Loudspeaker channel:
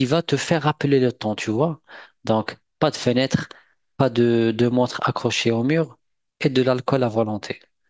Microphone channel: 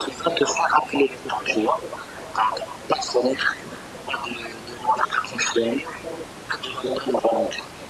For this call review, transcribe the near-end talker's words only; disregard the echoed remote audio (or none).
none